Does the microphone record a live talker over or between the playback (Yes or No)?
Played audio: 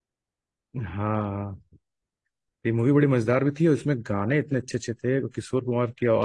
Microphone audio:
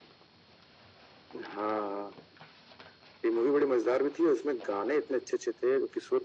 No